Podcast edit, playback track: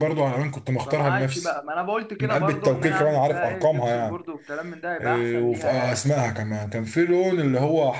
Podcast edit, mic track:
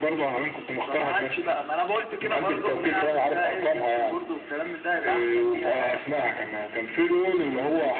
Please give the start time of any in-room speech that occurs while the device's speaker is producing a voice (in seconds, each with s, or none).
none